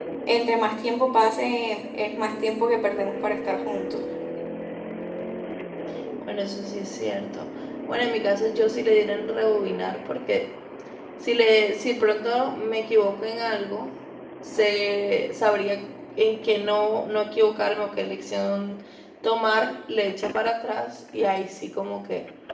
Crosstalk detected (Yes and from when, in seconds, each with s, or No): No